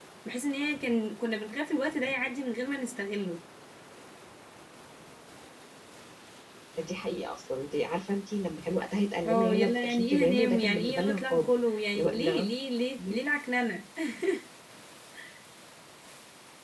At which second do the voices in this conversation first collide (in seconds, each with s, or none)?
9.2 s